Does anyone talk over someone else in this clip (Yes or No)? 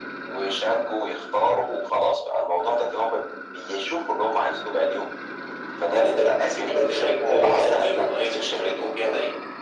Yes